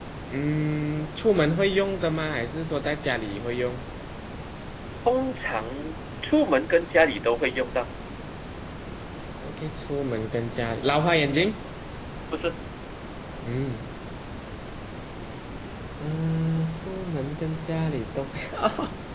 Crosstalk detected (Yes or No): No